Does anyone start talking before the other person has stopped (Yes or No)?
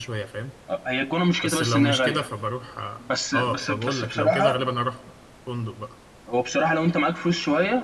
Yes